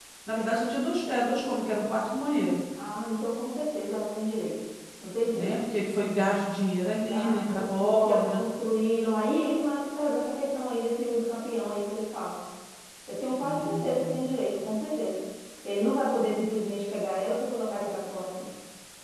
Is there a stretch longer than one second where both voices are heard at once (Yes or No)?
Yes